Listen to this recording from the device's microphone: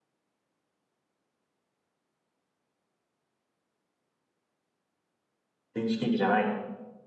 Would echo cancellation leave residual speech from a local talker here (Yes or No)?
Yes